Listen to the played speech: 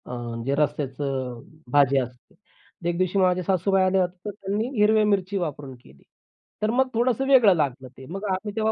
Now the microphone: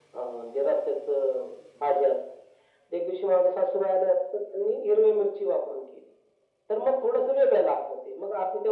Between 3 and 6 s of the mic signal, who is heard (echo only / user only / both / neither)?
echo only